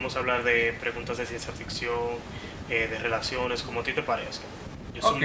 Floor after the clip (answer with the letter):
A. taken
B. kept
A